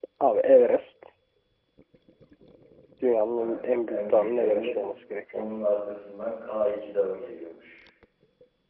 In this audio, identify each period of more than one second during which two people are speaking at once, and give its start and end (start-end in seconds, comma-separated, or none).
3.4-4.8